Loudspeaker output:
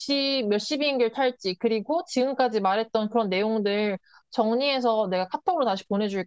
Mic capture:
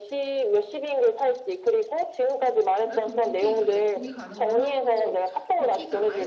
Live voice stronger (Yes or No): No